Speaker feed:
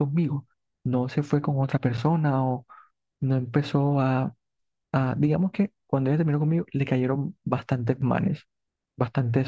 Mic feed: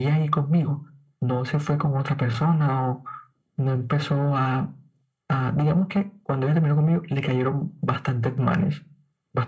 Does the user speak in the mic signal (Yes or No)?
No